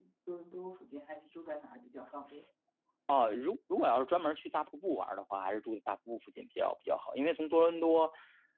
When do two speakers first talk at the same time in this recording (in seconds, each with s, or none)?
none